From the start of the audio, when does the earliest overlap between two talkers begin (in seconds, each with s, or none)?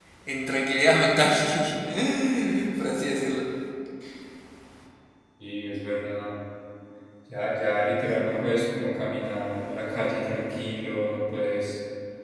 none